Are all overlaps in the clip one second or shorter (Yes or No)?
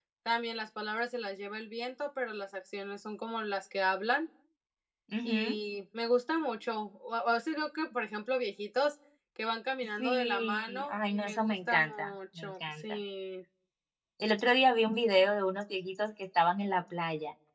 No